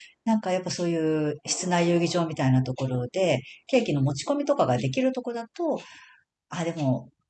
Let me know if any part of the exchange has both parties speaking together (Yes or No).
No